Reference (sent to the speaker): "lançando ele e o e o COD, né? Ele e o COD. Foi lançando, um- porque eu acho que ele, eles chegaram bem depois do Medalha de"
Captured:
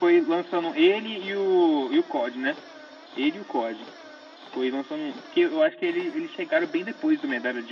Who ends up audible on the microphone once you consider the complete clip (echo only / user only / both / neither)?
echo only